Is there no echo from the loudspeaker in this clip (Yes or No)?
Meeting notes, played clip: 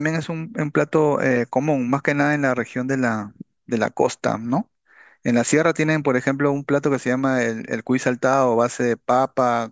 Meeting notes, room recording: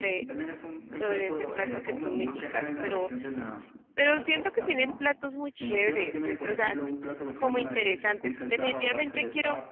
No